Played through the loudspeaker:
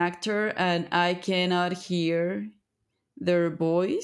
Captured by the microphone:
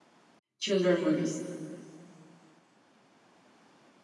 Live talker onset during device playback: 0.6 s

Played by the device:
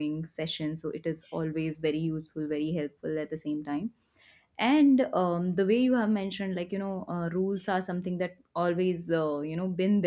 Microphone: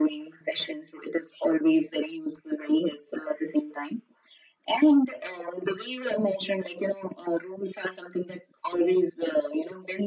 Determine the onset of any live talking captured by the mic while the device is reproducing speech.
none

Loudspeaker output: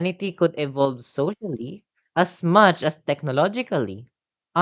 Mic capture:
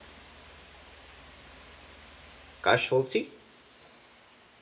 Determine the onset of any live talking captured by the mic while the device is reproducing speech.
2.6 s

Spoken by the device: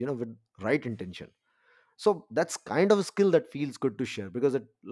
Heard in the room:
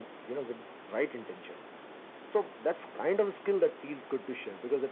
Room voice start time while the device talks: none

